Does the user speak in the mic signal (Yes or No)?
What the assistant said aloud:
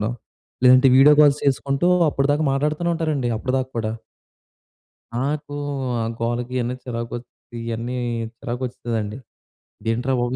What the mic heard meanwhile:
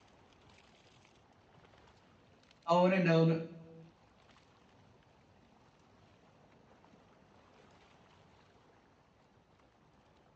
Yes